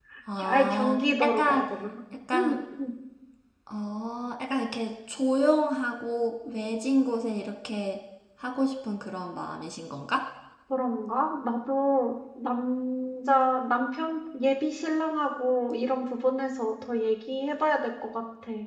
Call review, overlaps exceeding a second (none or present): present